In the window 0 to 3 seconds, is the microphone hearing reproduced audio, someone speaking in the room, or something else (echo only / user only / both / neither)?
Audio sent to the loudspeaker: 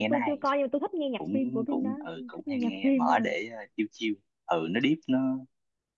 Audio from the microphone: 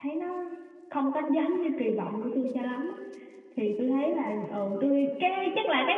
user only